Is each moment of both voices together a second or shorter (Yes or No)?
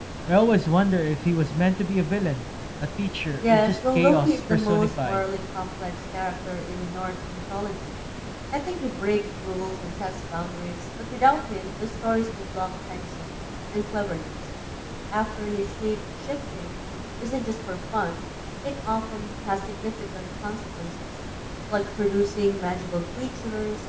No